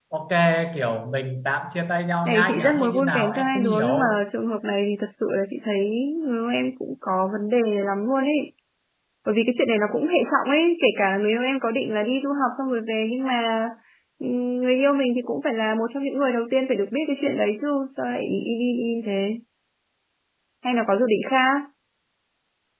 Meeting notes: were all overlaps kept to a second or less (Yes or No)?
No